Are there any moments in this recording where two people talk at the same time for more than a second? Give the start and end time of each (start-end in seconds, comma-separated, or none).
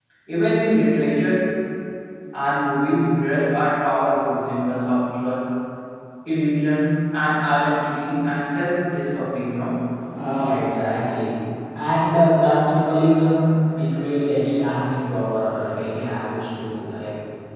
none